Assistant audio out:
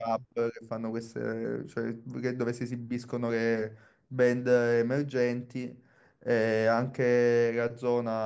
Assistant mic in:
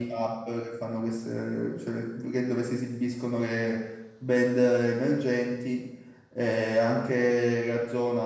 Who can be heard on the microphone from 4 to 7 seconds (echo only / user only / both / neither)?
echo only